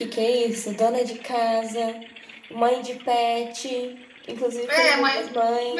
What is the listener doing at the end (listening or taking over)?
taking over